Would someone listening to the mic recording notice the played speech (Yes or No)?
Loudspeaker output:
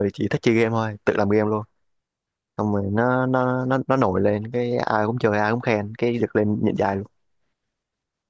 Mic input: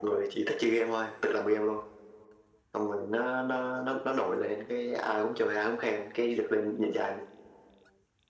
Yes